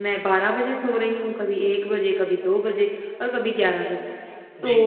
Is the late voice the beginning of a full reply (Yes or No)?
No